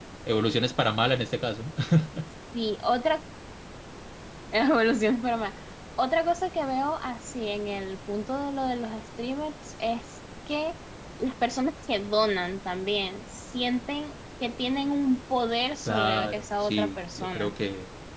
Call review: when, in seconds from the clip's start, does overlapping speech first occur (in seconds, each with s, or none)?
15.9 s